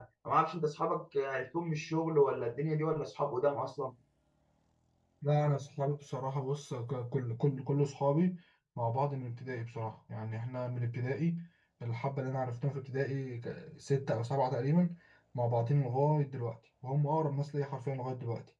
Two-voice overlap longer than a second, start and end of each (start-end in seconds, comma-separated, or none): none